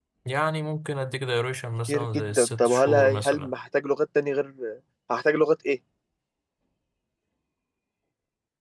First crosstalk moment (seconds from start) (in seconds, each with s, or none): 1.9 s